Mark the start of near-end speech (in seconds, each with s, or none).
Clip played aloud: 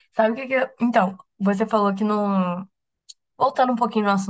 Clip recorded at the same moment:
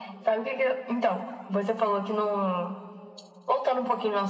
none